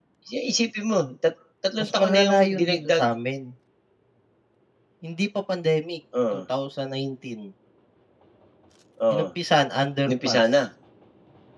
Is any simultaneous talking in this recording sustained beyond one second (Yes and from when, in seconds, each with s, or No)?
Yes, from 1.8 s